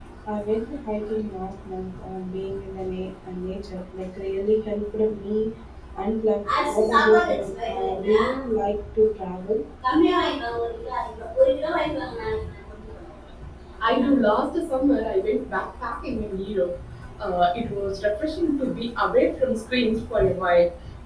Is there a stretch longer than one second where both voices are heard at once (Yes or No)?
Yes